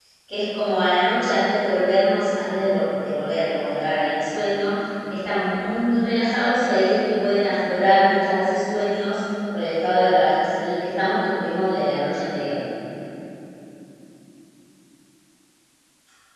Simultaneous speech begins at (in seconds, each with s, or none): none